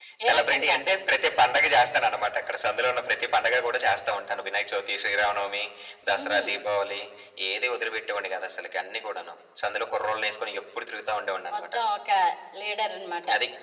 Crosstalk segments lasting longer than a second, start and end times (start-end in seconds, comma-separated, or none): none